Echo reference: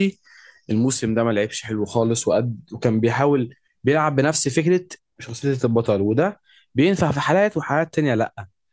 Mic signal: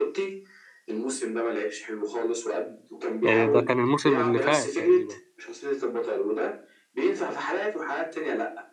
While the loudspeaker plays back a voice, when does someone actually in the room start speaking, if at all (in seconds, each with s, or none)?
3.2 s